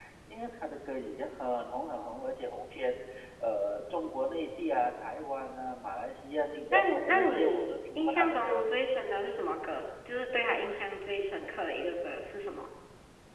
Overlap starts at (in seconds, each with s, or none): 6.7 s